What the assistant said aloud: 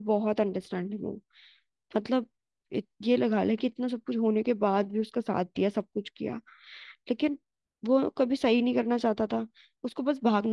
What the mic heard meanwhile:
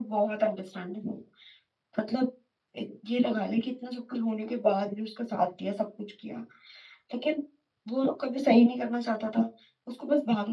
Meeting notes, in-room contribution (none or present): none